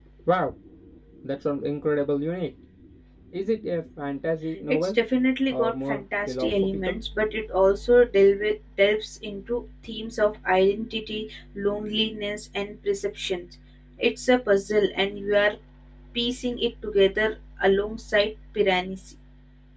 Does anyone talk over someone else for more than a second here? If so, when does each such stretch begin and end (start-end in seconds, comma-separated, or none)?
5.5-7.0